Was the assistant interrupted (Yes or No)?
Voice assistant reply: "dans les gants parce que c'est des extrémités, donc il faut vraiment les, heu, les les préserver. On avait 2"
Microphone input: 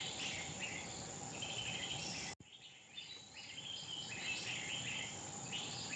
No